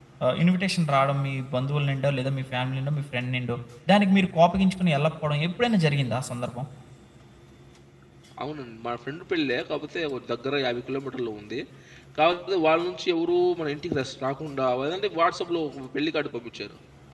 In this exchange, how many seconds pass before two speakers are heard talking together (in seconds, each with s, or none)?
none